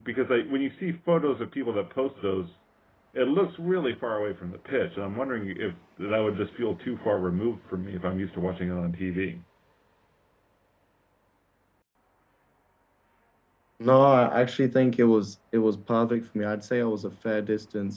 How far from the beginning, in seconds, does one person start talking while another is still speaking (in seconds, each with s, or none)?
none